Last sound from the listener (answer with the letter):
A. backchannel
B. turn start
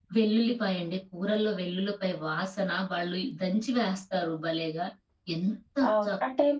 B